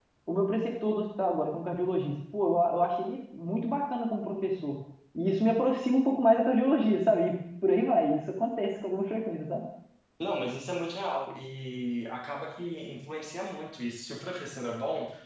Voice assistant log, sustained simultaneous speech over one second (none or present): none